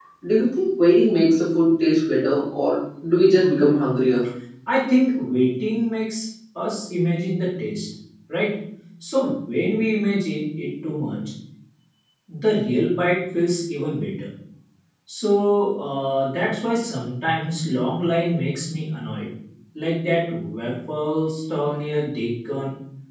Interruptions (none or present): none